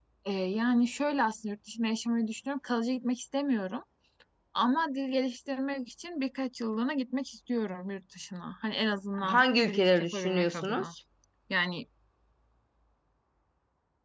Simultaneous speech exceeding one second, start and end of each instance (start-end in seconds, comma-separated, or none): 9.2-10.8